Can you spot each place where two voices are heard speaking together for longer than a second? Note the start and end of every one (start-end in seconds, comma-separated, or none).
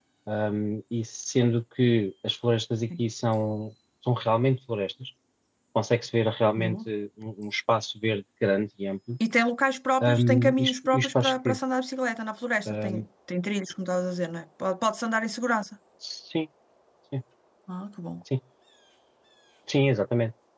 10.0-11.6